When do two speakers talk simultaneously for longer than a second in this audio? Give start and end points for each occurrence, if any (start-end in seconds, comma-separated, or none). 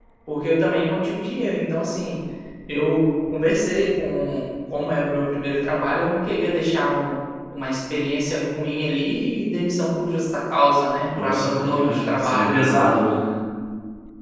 11.2-12.5